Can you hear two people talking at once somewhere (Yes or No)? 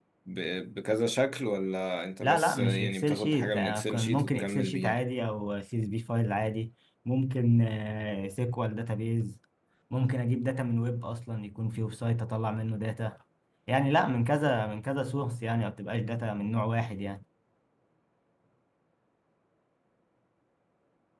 Yes